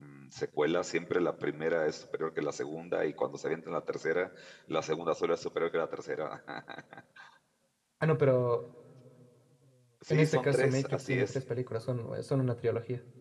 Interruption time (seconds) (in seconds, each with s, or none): 10.1 s